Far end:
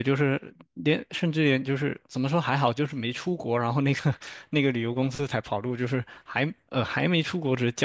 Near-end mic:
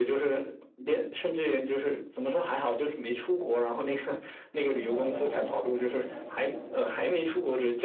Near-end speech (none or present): present